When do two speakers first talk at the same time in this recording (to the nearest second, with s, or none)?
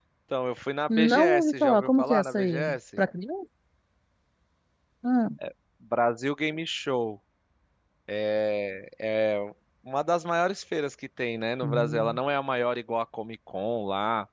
1 s